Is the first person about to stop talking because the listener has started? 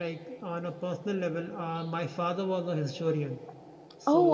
No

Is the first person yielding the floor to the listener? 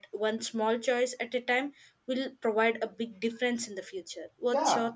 Yes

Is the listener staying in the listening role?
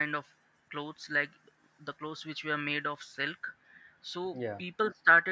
Yes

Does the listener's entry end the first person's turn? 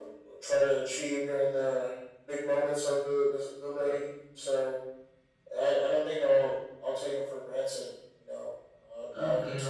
Yes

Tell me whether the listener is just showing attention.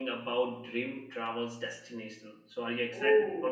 No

